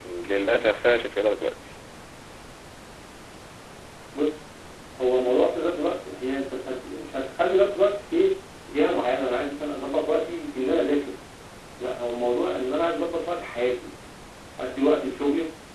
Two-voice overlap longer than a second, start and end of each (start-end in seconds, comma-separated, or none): none